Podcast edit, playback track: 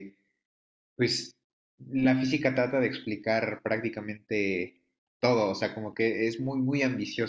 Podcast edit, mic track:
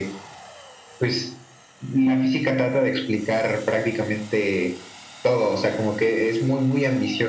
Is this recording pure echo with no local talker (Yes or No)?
Yes